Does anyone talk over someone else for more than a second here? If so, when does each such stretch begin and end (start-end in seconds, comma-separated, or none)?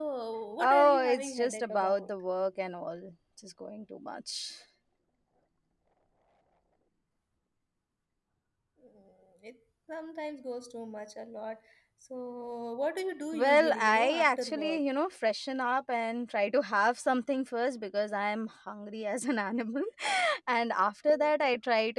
0.6-2.1, 13.3-14.8